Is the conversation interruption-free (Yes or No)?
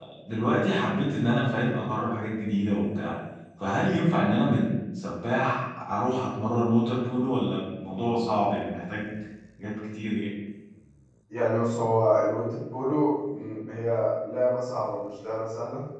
Yes